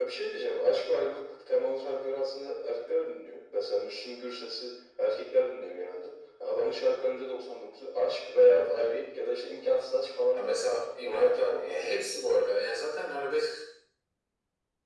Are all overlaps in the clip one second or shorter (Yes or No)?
No